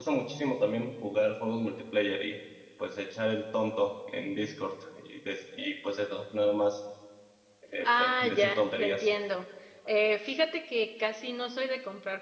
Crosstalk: present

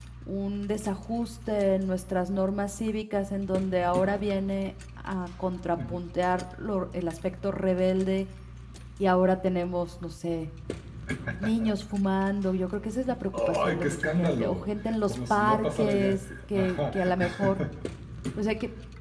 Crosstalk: present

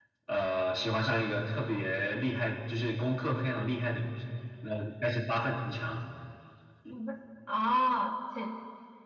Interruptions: none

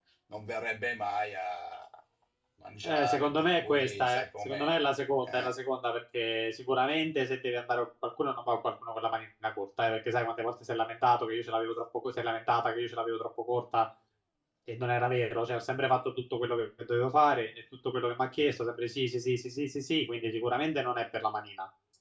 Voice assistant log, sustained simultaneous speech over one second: present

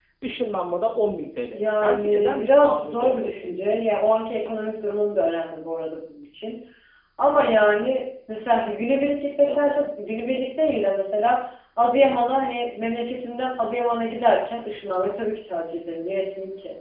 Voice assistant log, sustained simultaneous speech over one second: present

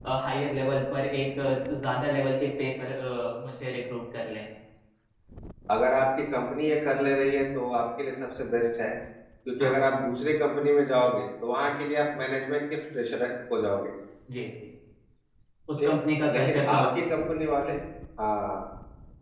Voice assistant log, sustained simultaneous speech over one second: none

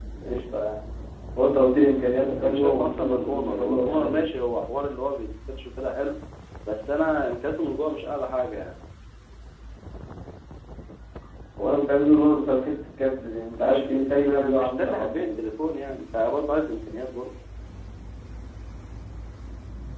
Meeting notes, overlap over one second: present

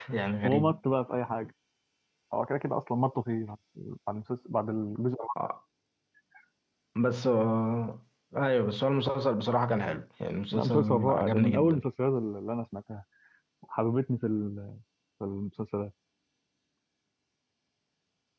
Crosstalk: present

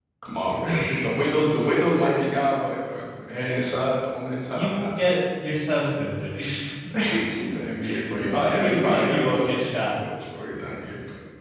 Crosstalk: present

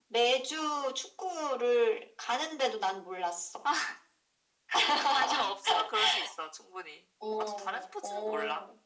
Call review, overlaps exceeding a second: present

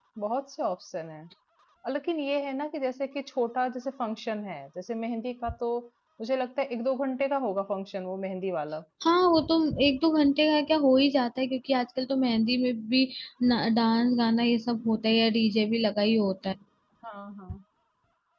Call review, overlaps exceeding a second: none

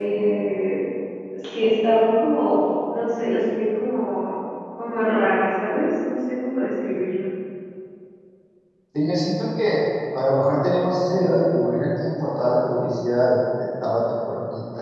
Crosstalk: none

